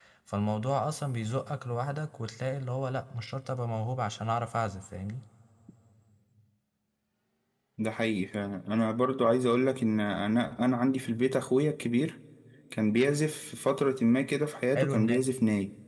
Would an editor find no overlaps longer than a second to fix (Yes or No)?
Yes